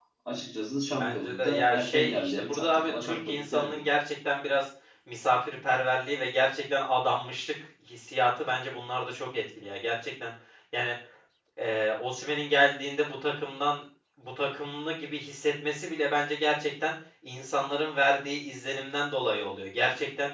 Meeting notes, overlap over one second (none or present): present